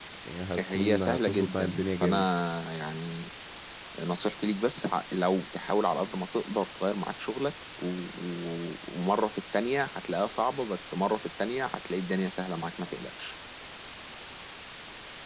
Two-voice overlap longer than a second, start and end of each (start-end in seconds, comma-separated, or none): 0.6-2.3